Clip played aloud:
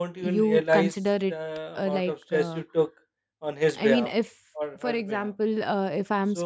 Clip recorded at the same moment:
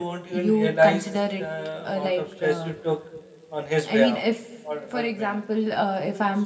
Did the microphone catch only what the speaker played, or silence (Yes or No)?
Yes